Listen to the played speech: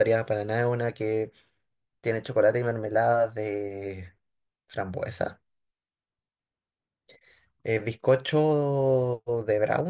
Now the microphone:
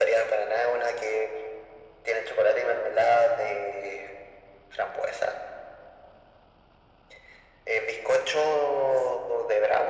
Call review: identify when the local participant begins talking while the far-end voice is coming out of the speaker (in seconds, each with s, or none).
none